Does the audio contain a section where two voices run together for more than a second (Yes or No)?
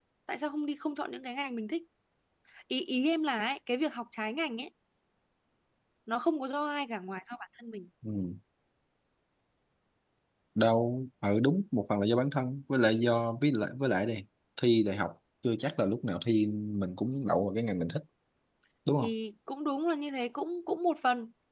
No